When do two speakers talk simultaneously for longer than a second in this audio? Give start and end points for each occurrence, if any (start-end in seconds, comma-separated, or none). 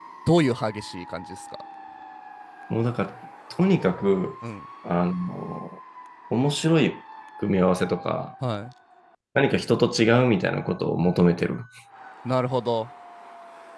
none